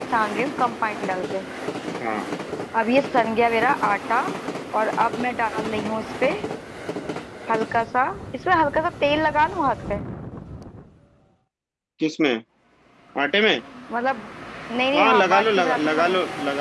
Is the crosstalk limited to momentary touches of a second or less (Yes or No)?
No